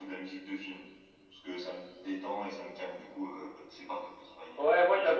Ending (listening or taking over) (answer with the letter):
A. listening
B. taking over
B